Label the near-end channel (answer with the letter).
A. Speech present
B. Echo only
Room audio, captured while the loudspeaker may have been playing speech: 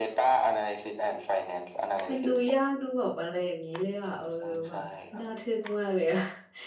A